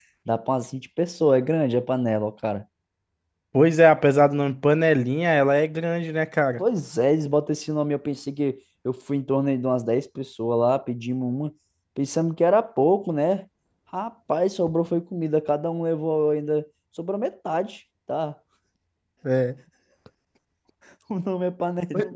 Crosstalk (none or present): none